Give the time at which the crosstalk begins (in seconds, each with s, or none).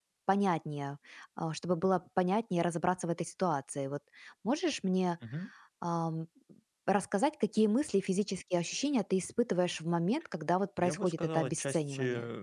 10.8 s